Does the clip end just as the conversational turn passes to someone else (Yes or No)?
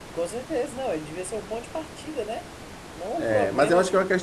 Yes